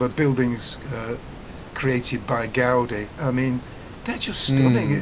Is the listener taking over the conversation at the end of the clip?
Yes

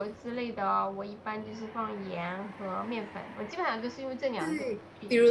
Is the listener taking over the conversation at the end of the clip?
Yes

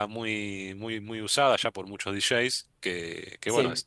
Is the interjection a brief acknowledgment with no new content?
Yes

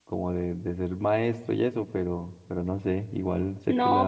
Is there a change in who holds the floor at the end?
Yes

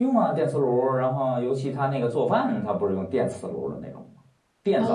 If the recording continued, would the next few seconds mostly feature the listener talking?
Yes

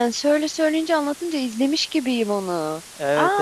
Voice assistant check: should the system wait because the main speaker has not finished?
No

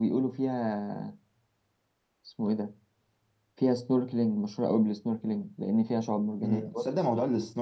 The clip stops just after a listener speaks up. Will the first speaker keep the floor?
No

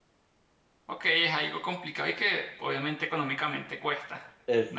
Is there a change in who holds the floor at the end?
Yes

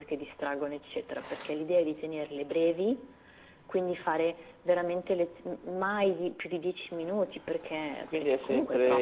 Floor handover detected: Yes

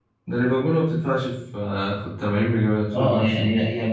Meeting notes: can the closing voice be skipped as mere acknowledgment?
No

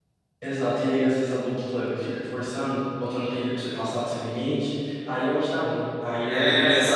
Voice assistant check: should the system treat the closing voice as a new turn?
Yes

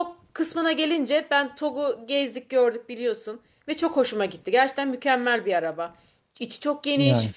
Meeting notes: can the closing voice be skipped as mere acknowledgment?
Yes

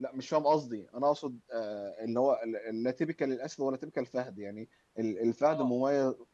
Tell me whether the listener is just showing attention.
Yes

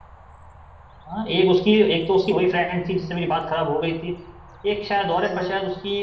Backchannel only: Yes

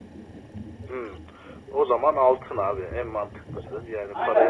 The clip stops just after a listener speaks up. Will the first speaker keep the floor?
No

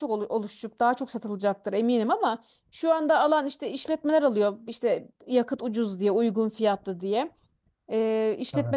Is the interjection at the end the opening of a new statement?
No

